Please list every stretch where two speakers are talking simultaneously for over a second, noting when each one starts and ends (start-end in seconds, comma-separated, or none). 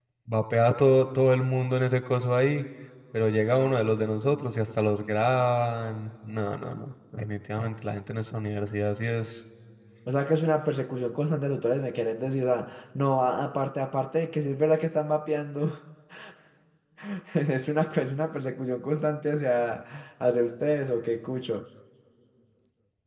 none